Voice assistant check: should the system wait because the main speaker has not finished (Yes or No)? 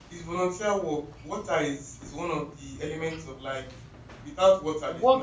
No